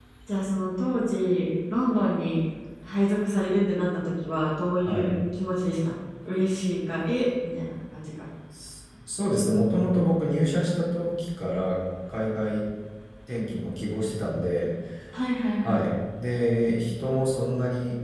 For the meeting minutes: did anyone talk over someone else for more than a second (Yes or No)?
No